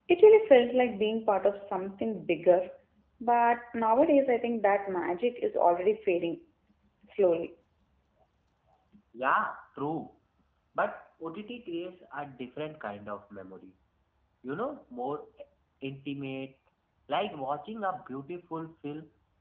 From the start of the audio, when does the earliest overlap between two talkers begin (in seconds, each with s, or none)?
none